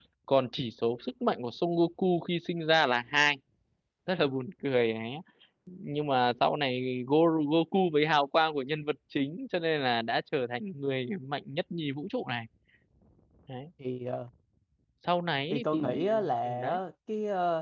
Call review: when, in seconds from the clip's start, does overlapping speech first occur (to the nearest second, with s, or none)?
16 s